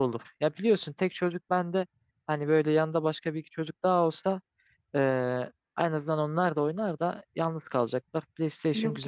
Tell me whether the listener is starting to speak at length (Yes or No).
Yes